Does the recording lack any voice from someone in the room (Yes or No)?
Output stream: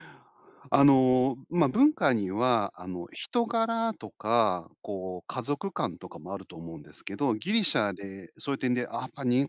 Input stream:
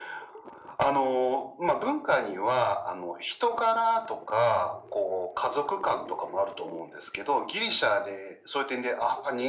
Yes